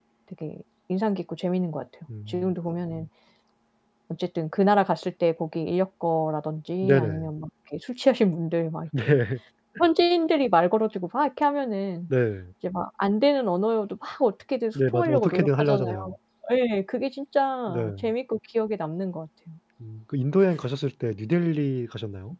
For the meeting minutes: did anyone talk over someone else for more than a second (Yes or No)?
Yes